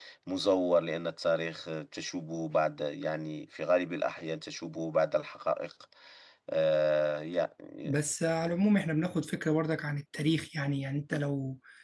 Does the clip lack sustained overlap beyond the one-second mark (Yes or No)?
Yes